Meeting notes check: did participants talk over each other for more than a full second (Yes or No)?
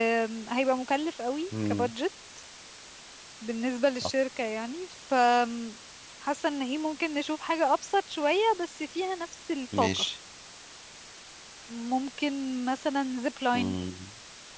No